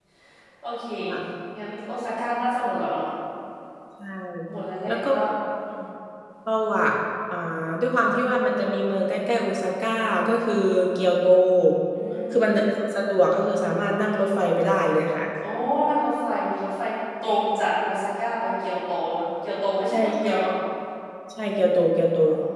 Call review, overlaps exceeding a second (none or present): none